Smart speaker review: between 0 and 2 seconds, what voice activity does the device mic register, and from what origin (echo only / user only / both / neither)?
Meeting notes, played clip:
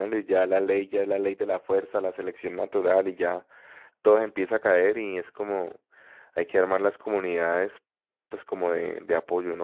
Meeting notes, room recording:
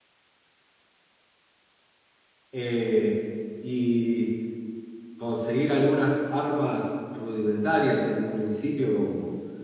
neither